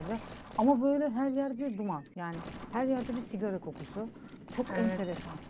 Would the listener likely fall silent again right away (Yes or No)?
Yes